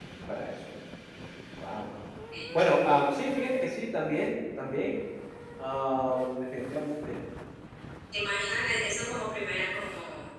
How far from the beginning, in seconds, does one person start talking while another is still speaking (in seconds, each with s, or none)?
none